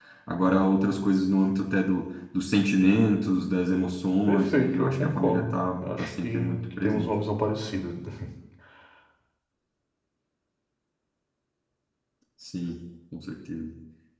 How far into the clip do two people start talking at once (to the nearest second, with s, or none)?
4 s